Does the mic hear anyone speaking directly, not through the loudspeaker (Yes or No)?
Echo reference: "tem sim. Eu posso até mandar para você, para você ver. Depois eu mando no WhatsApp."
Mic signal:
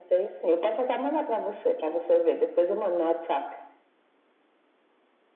No